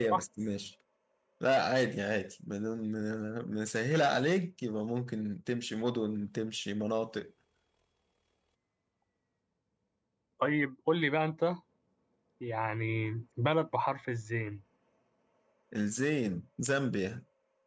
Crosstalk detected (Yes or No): No